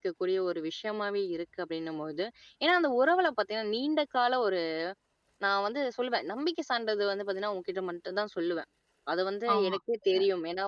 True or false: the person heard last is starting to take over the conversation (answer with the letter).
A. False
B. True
A